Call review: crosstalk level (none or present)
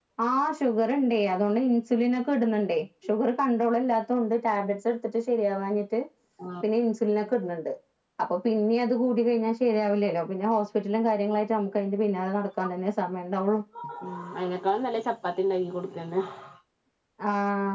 none